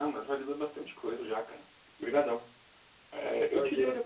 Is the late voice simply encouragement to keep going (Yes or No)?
Yes